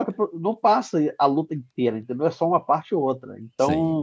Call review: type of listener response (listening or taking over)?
listening